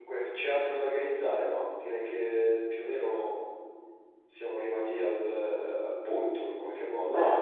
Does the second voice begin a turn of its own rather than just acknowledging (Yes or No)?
Yes